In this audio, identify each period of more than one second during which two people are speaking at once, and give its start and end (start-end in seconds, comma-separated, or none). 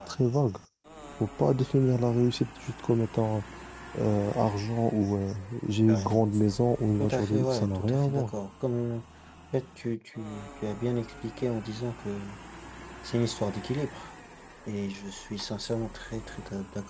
7.0-8.3